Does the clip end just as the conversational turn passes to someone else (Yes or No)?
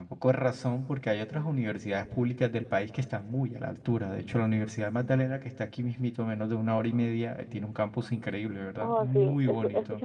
Yes